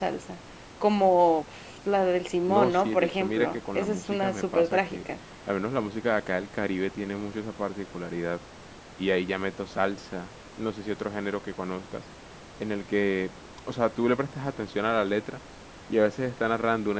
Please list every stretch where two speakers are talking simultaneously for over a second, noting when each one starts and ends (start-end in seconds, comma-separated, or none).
2.5-5.0